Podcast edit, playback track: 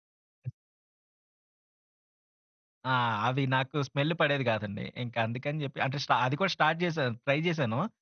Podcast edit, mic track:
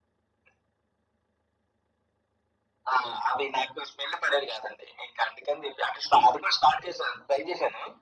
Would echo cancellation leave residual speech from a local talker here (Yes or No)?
No